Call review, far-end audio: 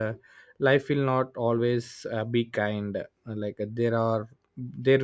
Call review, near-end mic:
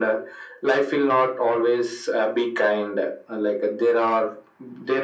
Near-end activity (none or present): none